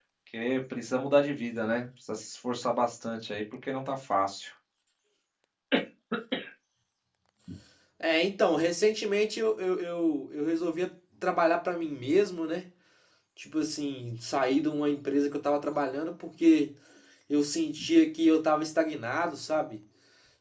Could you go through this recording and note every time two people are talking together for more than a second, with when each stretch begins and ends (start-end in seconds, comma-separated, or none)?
none